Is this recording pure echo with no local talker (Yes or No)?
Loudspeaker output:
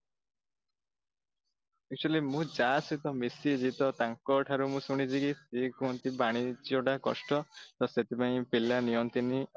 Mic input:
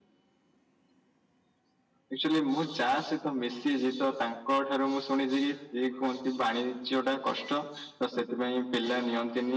Yes